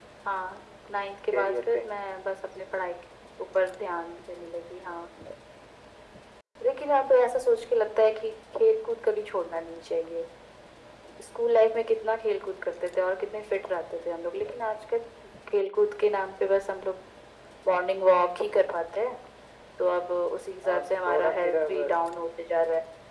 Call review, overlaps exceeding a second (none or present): present